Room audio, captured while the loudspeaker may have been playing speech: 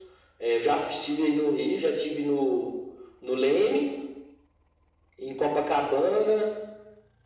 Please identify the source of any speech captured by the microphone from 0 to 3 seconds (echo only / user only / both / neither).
echo only